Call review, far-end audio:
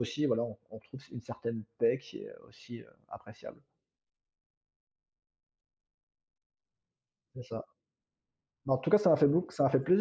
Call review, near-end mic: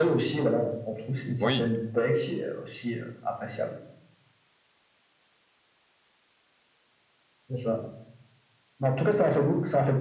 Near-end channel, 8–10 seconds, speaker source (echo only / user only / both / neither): echo only